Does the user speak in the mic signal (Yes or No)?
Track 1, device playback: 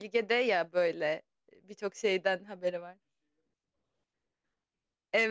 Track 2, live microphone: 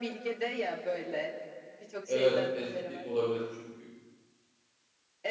Yes